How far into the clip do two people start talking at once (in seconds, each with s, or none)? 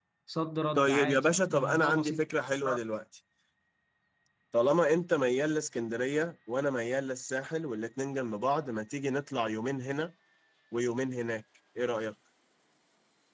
0.8 s